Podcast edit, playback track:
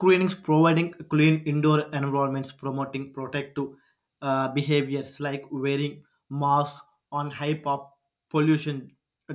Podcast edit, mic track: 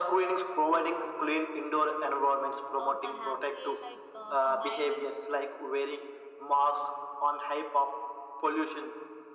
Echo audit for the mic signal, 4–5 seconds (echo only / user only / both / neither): both